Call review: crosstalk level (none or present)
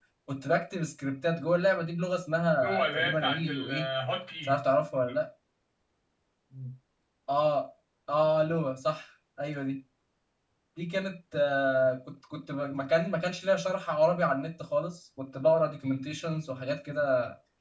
present